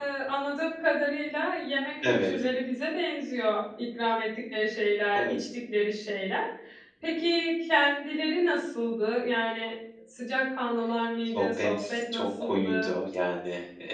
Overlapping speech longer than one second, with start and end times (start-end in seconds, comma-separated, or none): 11.4-12.9